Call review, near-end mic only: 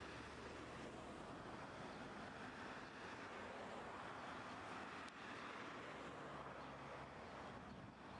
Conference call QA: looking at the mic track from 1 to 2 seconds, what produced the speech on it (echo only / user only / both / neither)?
neither